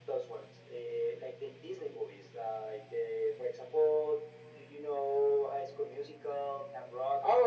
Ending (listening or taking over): taking over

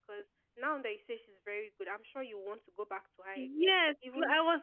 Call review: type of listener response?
taking over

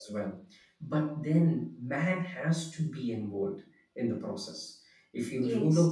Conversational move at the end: listening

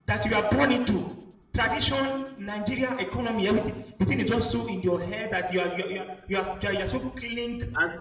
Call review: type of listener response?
taking over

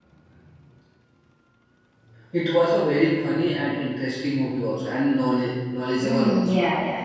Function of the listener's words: taking over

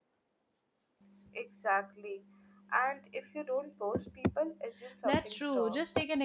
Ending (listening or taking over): taking over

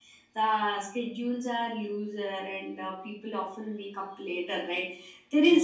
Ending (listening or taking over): listening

